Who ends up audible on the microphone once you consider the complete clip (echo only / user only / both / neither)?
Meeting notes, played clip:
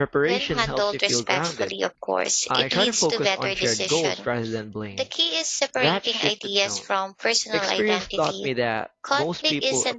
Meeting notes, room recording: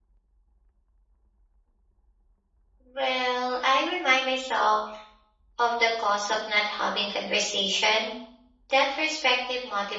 user only